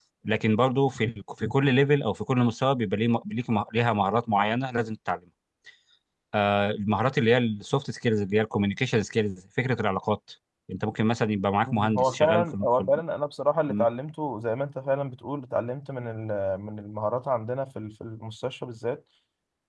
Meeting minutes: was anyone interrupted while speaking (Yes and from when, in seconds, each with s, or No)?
Yes, from 11.7 s